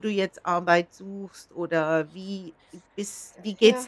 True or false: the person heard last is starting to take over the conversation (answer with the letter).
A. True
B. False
B